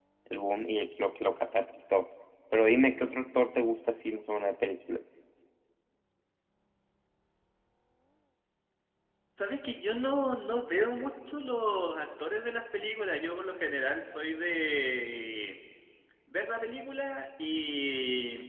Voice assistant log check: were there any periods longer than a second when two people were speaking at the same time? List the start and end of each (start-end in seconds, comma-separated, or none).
none